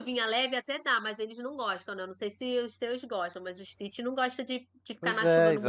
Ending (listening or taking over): taking over